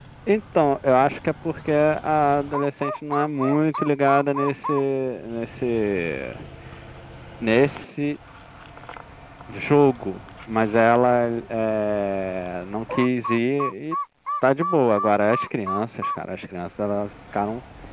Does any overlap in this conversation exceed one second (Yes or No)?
No